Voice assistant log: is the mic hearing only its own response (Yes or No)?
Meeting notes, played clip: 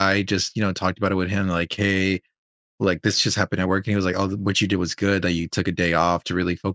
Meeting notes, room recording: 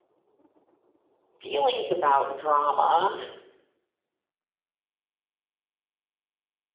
No